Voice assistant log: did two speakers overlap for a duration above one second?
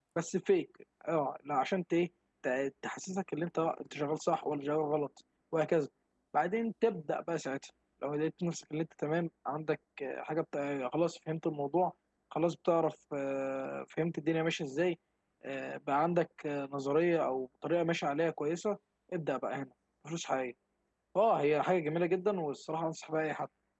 No

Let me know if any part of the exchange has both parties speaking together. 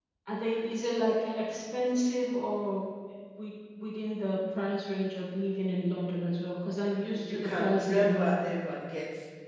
Yes, from 7.1 s

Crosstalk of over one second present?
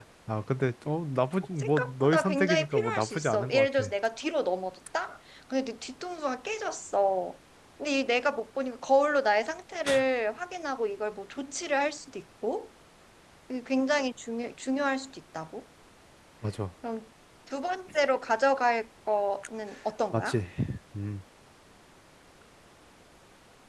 Yes, from 1.6 s

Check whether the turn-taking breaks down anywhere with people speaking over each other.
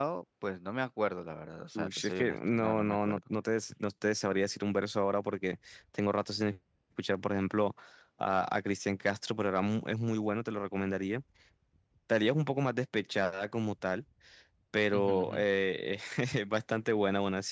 Yes, from 1.8 s

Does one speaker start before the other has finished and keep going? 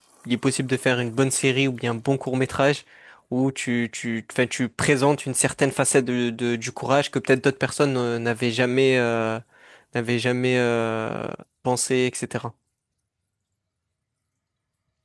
No

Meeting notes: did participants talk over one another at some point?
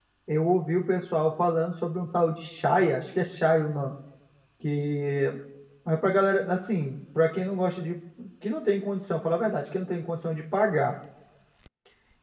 No

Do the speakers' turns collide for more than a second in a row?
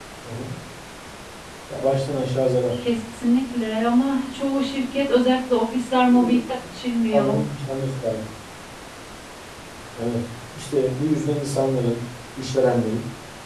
No

